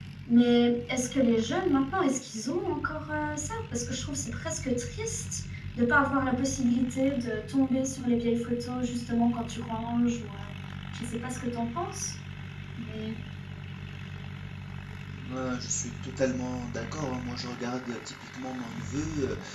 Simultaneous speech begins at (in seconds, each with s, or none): none